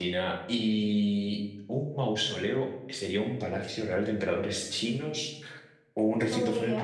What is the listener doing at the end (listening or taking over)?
listening